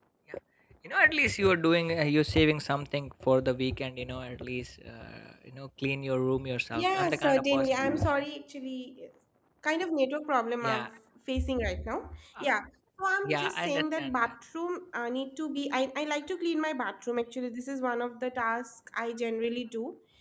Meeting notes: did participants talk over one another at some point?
Yes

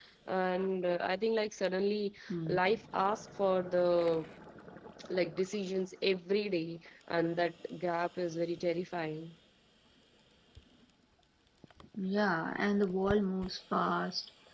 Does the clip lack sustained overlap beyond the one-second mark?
Yes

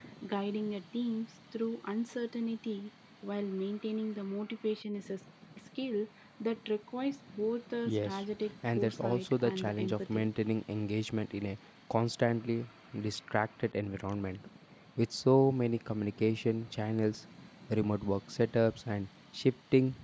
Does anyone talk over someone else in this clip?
Yes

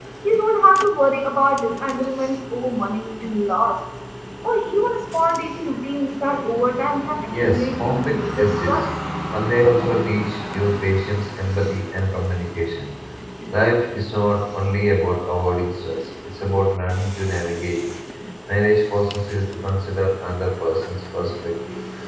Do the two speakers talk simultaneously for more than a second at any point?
Yes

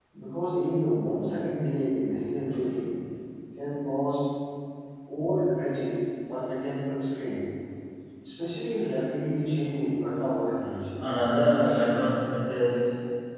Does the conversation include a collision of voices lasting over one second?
No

